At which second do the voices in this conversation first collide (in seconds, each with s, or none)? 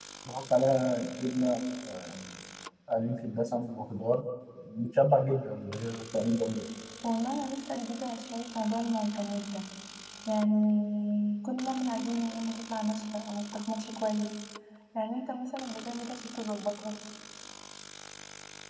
none